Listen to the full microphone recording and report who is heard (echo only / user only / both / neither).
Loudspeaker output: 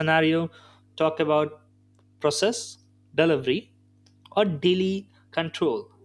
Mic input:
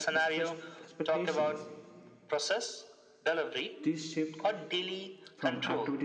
both